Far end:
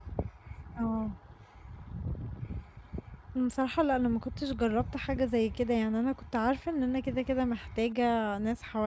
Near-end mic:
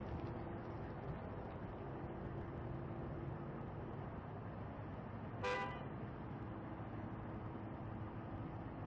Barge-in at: none

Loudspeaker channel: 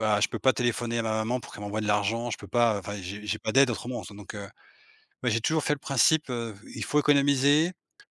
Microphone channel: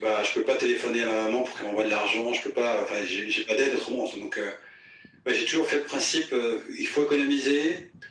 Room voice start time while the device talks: none

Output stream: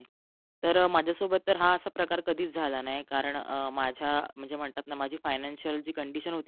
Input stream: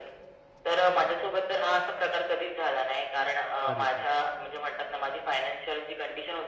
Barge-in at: 3.6 s

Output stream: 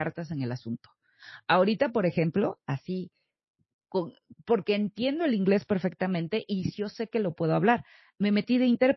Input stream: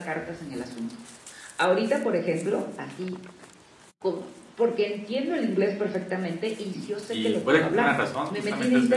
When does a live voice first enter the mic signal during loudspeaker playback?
7.1 s

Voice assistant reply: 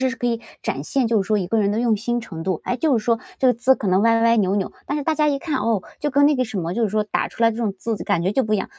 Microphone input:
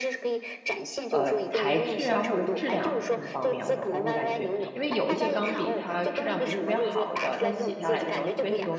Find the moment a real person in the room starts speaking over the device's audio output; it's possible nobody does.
1.1 s

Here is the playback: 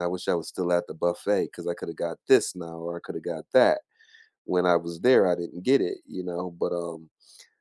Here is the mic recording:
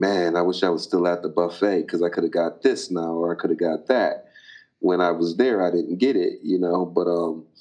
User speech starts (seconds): none

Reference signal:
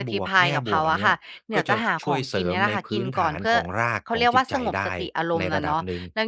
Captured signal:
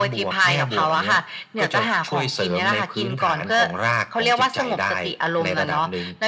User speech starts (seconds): none

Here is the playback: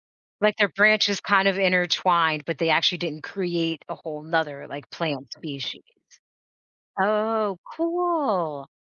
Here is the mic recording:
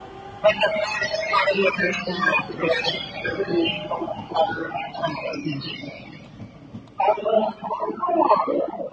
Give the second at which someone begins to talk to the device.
none

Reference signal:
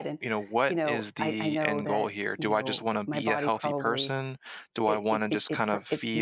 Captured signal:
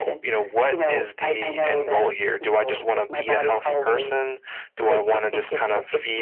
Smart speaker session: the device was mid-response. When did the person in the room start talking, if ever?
none

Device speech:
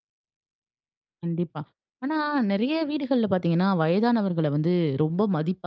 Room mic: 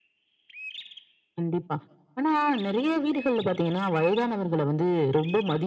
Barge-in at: none

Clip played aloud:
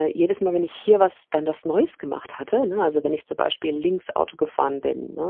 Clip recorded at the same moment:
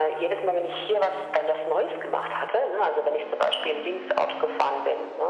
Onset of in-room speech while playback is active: none

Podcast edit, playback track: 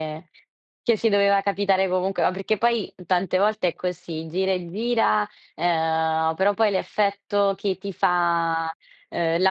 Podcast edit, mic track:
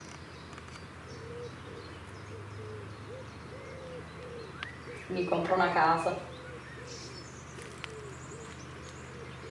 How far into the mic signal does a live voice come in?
5.1 s

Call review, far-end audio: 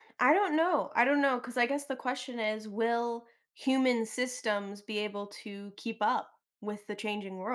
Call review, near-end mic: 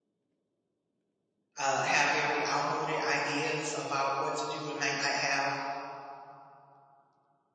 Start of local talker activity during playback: 1.6 s

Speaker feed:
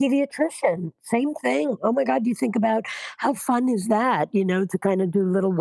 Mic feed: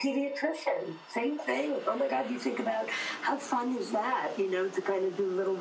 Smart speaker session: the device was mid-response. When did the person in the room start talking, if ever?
none

